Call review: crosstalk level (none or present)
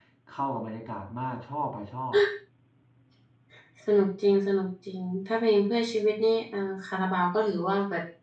none